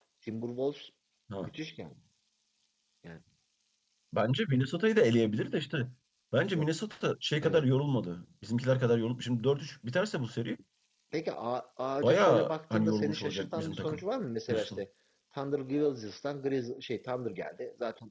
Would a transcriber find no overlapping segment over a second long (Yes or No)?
No